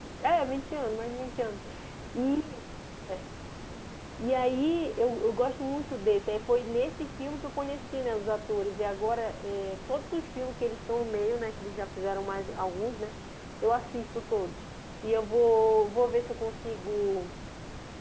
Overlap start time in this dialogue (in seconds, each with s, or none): none